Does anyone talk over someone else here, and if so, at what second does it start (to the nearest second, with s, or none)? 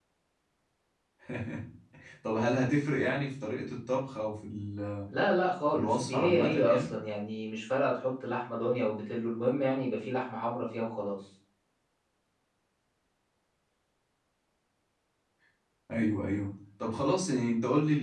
6 s